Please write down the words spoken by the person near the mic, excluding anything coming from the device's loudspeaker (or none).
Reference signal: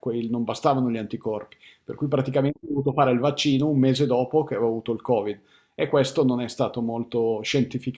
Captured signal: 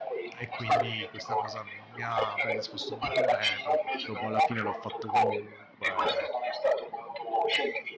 e quindi questa cosa non mi ha predisposto molto bene, però dopo alla fine l'ho fatto comunque